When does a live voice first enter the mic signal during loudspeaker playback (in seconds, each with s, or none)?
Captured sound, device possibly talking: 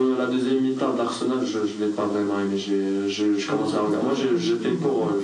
3.5 s